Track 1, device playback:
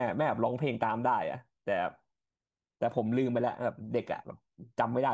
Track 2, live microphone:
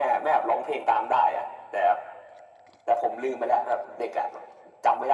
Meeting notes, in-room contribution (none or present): none